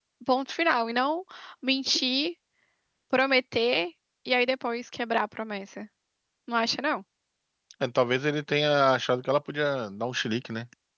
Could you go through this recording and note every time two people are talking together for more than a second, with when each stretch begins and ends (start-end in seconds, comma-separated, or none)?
none